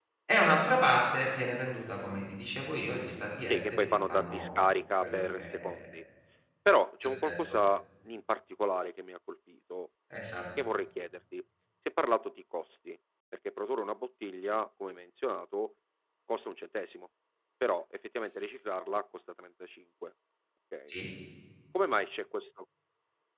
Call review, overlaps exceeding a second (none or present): present